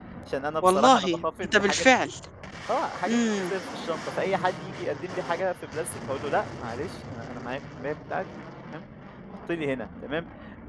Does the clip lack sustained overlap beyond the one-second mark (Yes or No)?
No